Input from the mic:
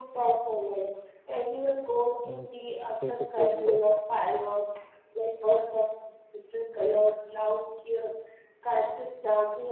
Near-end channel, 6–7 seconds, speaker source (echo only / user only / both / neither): echo only